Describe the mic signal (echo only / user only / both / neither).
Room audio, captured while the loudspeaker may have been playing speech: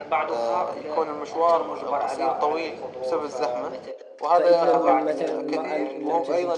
both